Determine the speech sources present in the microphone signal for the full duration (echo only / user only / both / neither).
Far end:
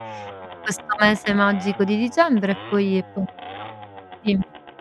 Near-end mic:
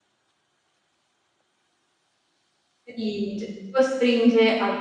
user only